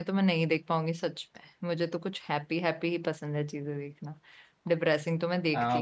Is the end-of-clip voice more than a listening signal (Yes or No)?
Yes